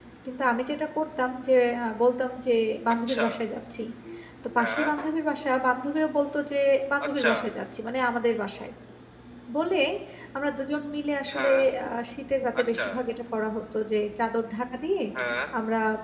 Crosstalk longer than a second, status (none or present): none